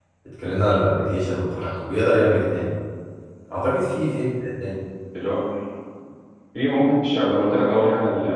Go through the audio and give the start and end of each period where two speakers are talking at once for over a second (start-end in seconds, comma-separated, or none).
none